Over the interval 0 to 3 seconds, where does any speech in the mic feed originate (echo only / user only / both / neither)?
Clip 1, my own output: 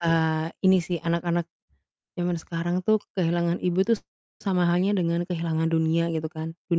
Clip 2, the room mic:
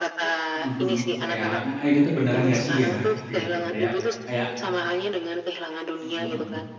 both